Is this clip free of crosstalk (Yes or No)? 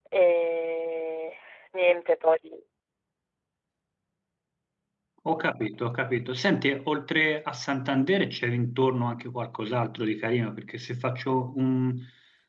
Yes